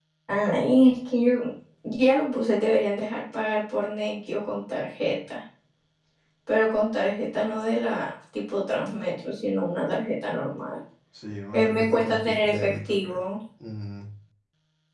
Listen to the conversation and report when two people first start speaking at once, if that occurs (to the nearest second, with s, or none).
12 s